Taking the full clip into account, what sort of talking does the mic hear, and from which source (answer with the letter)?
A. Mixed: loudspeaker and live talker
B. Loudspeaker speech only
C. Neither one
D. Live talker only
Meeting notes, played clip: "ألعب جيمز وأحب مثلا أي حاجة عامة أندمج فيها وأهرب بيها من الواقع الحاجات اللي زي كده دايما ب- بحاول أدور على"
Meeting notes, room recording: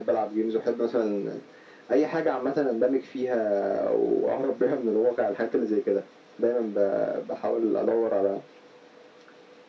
B